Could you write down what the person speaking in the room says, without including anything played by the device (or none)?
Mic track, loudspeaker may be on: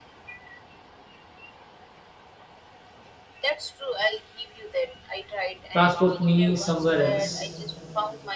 transport me somewhere else.